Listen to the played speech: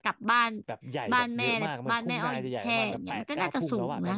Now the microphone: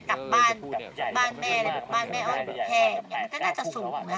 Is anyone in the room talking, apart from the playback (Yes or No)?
Yes